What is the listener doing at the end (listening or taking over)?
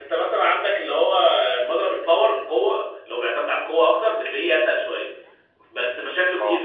listening